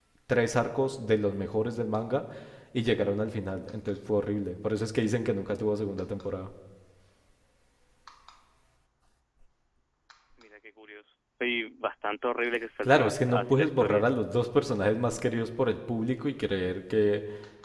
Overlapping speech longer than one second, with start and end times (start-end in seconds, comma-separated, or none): 12.8-14.1